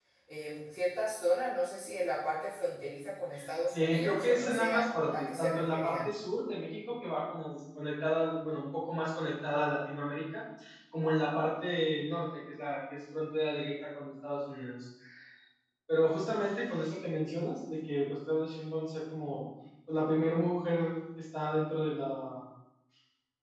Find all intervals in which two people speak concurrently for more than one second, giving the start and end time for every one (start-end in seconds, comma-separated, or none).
3.7-6.0